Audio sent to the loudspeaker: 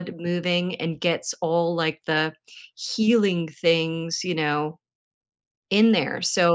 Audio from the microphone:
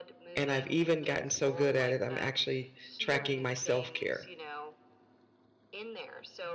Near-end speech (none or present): present